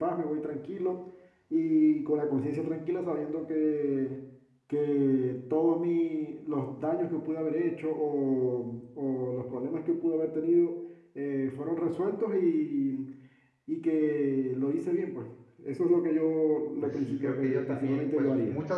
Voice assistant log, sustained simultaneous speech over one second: present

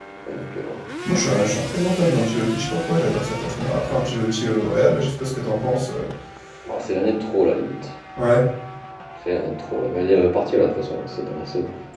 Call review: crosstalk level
none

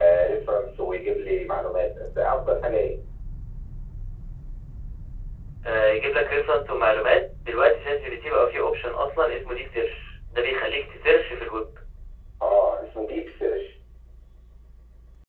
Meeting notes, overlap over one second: none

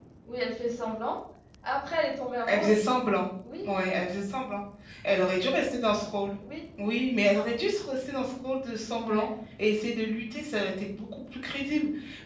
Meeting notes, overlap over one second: none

